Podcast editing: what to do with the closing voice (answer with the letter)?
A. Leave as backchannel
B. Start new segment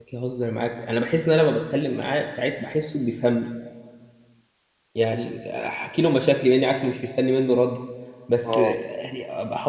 A